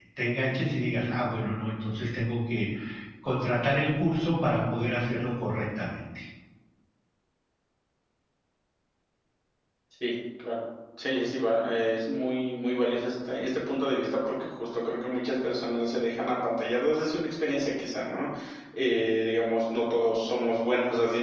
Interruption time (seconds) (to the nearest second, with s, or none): none